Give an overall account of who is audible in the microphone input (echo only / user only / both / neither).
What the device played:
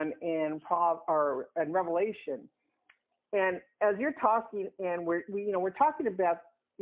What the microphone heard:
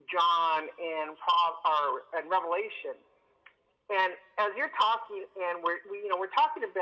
echo only